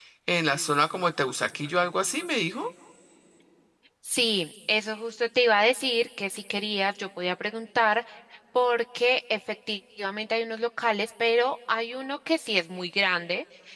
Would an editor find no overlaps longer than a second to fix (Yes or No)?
Yes